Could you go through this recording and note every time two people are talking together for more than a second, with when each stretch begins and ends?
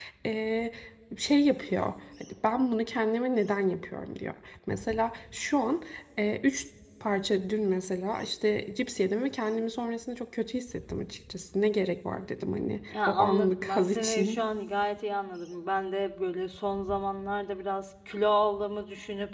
12.9-14.4

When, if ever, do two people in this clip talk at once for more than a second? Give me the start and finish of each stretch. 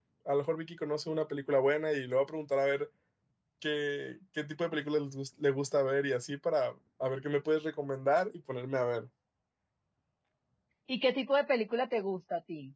none

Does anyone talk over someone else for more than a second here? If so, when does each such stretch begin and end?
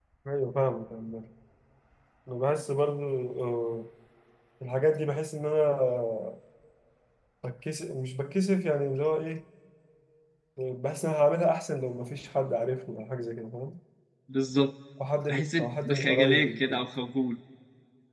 15.3-16.8

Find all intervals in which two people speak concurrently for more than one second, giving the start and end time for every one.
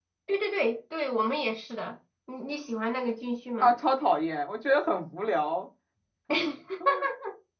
none

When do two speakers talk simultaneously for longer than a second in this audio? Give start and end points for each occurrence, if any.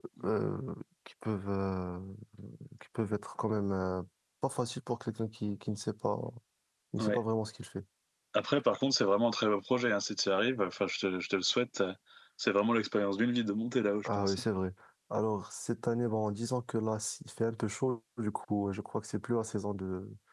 none

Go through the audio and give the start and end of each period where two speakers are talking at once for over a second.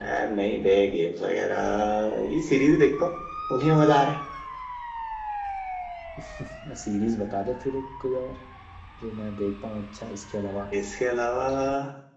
none

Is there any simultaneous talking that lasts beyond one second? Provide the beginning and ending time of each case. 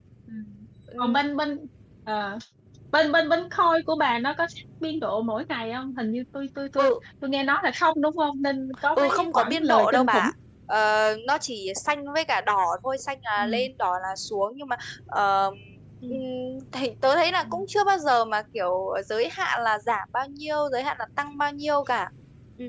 9.0-10.3

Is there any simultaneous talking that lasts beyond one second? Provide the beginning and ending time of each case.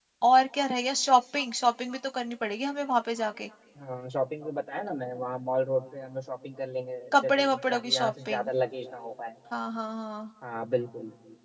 7.1-8.5

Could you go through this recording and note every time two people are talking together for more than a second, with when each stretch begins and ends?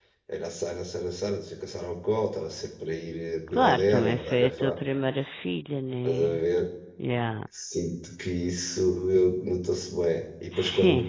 3.5-4.8

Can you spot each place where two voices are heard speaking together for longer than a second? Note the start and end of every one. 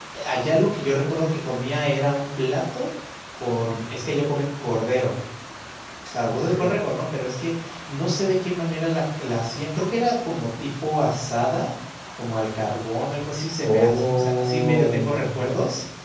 13.6-15.4

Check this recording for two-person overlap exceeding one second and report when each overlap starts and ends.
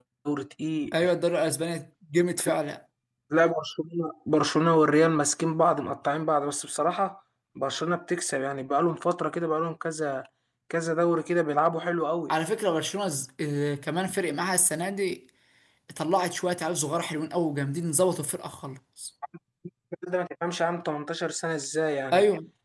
none

